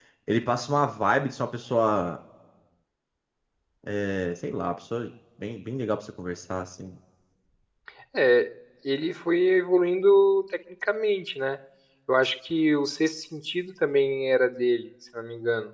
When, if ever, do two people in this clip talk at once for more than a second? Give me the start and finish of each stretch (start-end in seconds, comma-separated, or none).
none